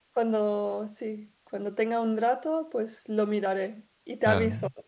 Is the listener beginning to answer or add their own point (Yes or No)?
Yes